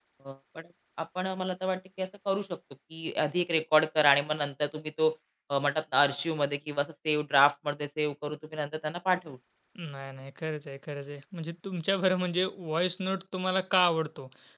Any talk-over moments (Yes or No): No